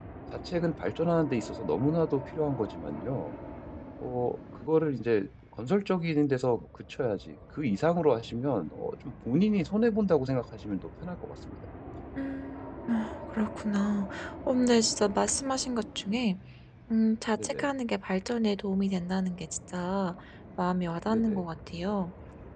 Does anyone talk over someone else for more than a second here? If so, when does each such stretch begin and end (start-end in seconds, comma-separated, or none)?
none